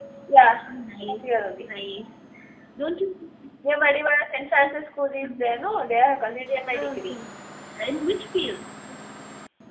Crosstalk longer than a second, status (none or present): none